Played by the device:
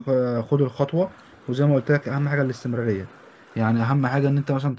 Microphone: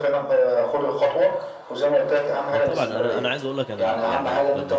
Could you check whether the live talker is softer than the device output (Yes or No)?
Yes